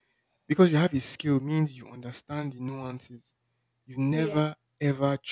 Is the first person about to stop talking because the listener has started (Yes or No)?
No